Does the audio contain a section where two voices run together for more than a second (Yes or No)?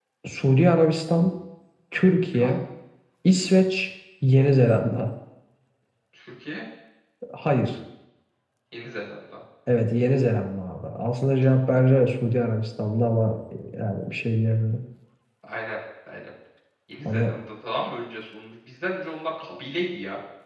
No